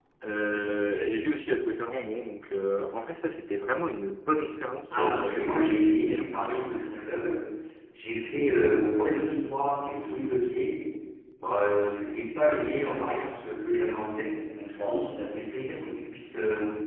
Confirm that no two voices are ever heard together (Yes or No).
No